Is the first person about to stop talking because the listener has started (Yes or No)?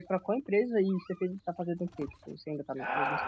Yes